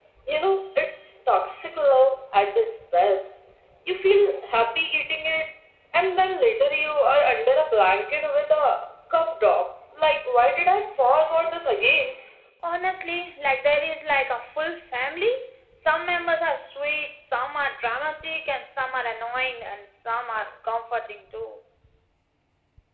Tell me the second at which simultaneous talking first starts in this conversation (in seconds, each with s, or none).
none